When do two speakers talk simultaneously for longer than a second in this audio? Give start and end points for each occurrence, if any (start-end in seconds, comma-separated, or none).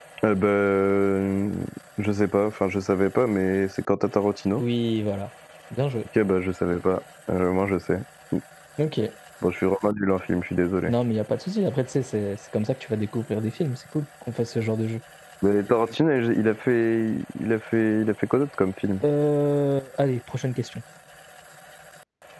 none